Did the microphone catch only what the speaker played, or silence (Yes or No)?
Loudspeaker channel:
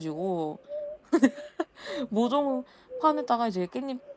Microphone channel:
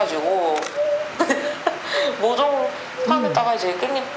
No